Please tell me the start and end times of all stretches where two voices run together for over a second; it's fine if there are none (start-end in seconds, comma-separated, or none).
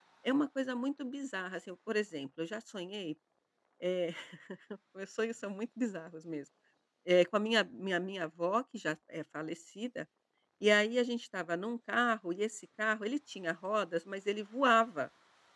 none